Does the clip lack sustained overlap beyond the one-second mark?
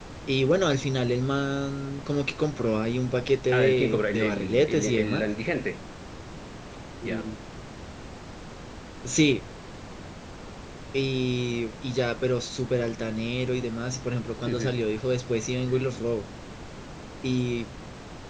No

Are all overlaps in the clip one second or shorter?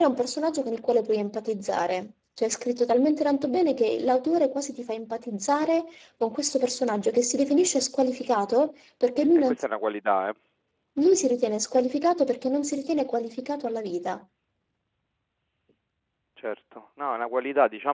Yes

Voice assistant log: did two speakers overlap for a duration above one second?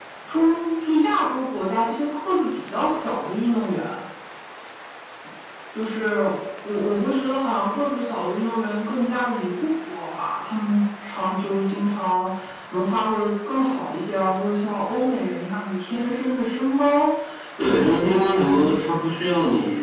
Yes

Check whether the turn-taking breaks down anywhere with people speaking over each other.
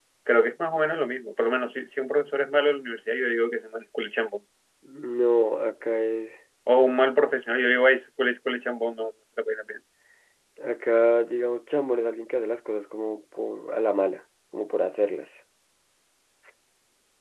No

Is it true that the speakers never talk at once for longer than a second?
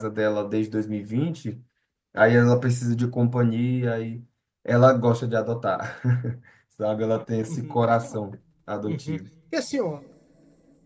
Yes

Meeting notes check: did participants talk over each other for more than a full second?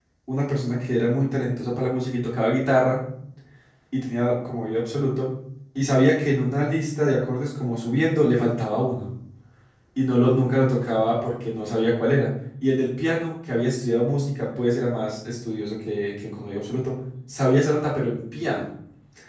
No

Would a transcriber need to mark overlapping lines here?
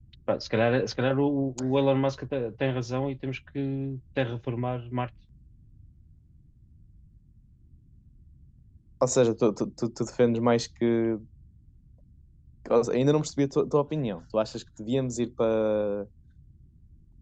No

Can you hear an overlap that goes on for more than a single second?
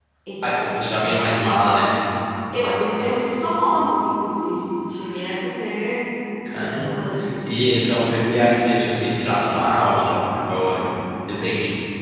Yes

